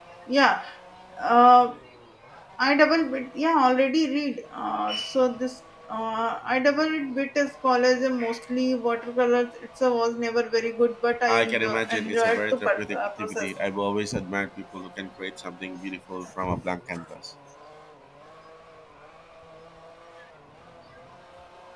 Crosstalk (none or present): present